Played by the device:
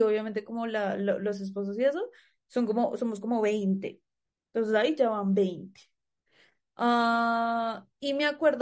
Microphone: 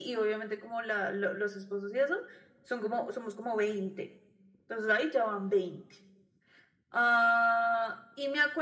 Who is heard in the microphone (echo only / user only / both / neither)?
echo only